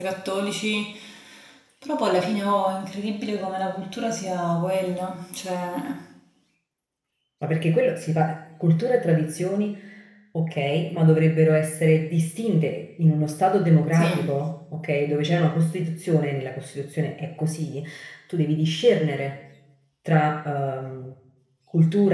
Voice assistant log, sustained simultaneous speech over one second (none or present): none